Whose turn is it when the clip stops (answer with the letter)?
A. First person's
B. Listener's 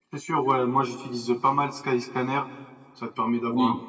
A